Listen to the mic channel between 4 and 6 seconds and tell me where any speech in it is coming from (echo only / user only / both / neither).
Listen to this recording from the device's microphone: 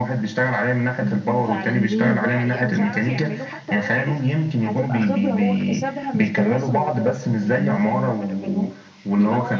both